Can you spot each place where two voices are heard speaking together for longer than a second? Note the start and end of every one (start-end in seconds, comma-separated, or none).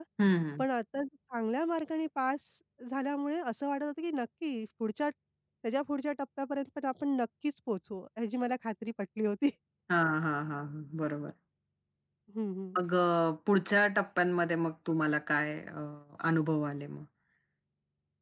none